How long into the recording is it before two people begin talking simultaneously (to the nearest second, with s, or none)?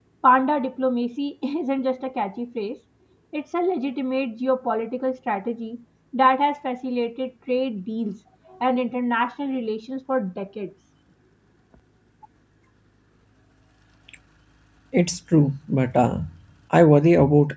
none